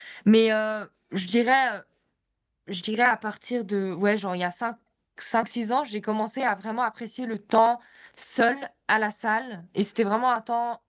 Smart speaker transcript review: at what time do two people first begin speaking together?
none

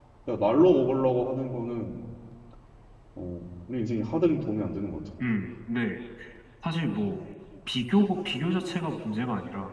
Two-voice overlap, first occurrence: none

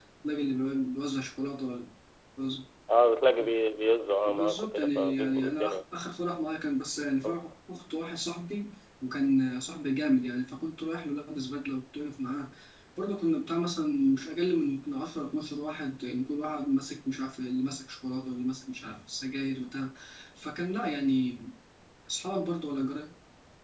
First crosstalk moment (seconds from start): 4 s

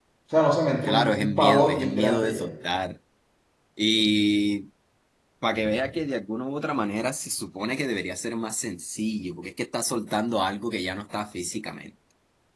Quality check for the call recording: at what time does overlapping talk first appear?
1 s

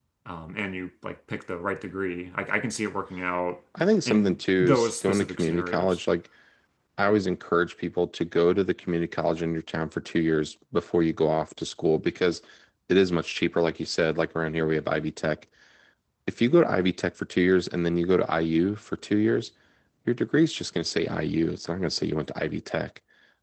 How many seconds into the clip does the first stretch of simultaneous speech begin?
4 s

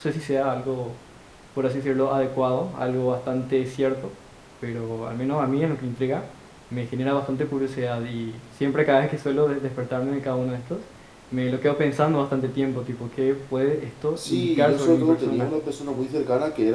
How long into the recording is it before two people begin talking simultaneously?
14 s

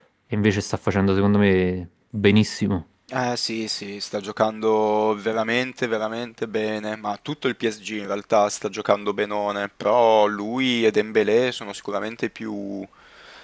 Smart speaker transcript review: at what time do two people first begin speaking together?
none

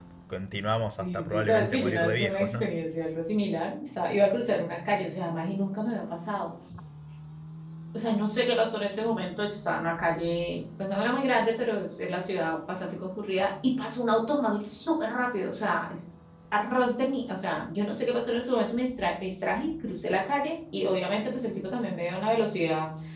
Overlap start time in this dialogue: 1 s

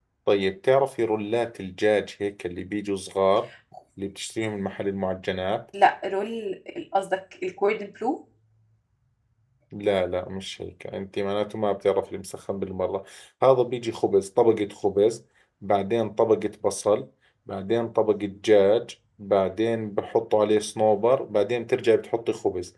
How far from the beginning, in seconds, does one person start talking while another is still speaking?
none

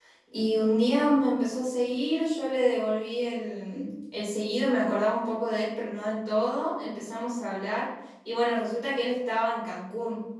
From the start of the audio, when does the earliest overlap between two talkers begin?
none

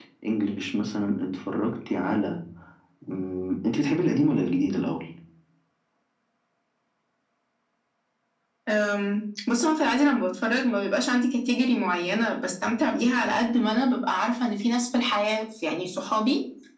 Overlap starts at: none

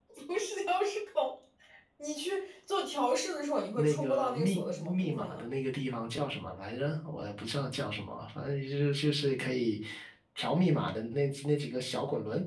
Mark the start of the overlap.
4 s

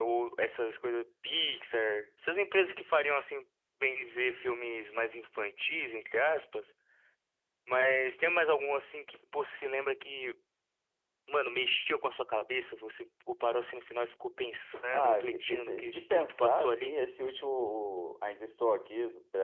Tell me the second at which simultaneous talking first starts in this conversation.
15 s

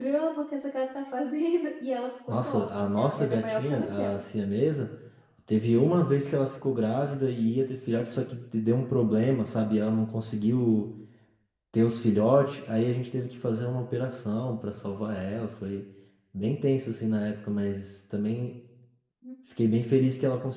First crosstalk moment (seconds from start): 2 s

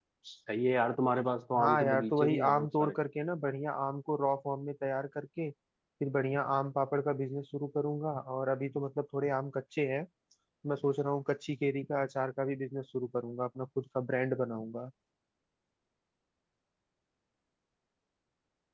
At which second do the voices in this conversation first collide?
2 s

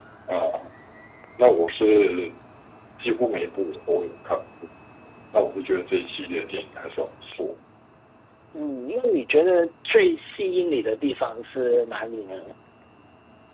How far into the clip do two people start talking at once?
none

